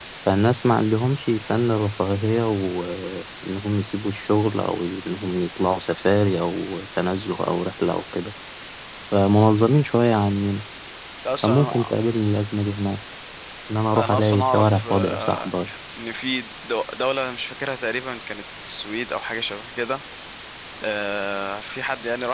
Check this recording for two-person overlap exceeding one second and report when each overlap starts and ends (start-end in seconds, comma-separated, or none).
13.9-15.5